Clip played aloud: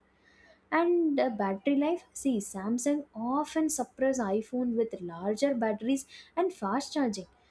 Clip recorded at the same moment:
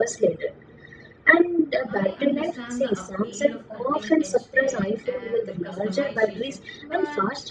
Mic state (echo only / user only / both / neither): both